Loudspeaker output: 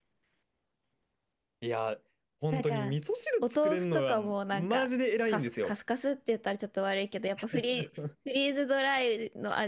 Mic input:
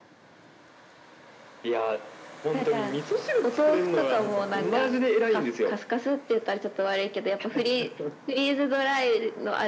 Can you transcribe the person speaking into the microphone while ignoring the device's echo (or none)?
なんかこ